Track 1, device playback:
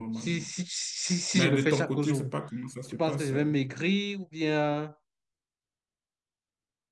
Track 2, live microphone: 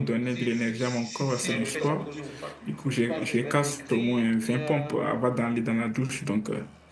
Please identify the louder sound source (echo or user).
user